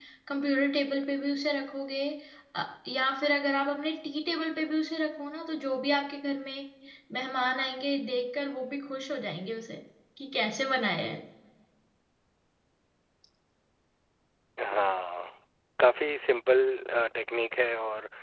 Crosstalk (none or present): none